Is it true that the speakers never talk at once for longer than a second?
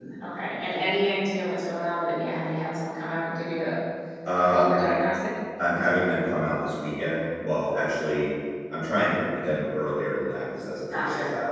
Yes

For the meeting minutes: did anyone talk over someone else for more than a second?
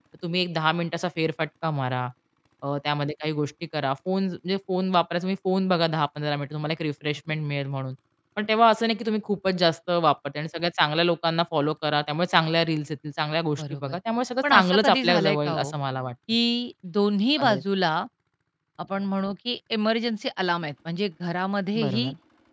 Yes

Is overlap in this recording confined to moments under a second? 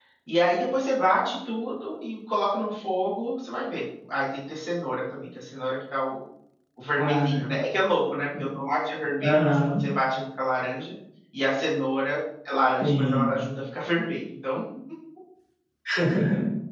Yes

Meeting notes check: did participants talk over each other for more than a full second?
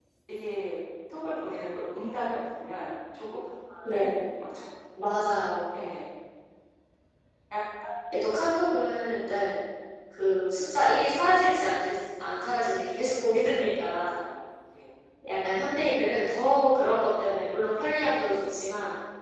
No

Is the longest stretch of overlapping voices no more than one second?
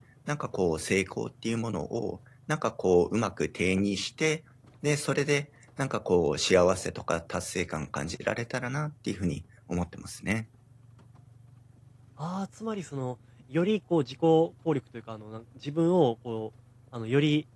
Yes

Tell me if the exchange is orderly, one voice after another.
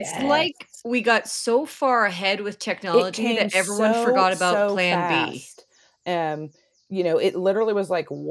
No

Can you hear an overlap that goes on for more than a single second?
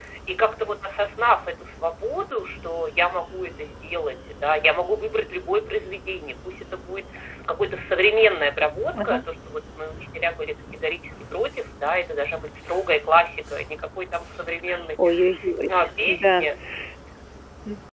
No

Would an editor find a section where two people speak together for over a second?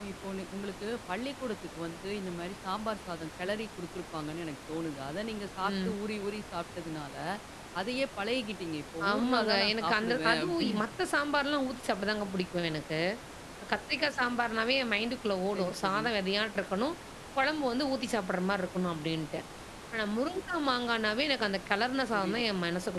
Yes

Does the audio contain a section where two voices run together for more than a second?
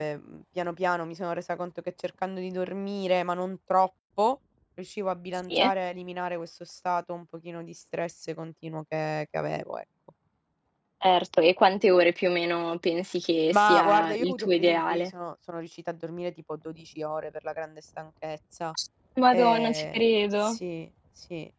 Yes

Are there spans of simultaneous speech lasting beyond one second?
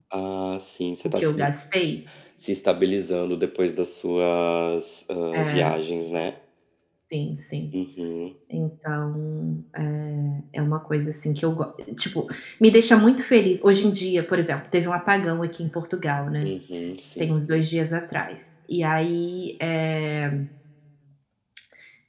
No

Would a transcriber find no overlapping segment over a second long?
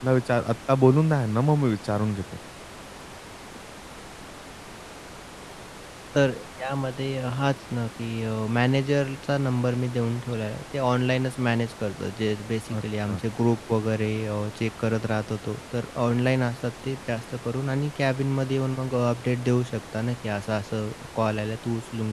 Yes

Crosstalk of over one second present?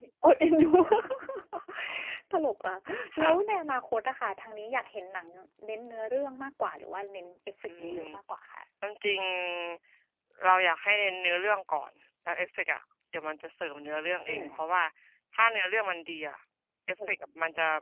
No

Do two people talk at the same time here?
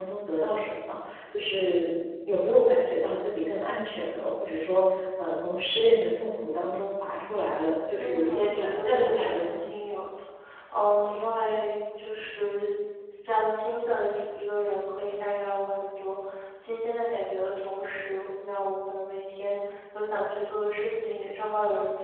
Yes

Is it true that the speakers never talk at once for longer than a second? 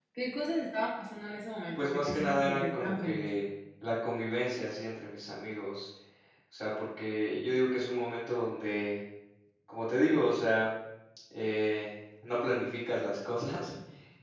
No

